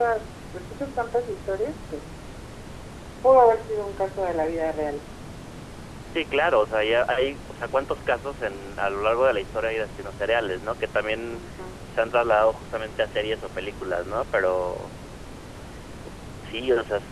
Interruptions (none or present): none